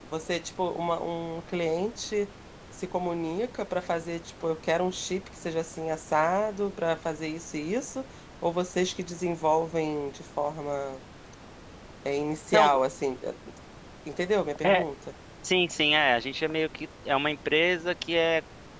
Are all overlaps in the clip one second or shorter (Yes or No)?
Yes